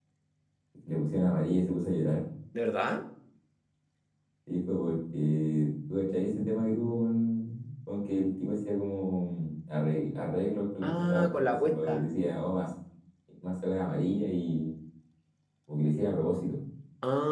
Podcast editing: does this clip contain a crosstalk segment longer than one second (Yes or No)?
Yes